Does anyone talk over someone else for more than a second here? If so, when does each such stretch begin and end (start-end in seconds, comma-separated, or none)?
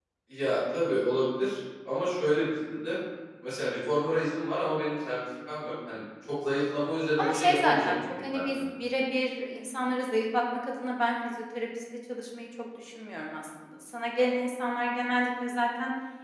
7.2-8.6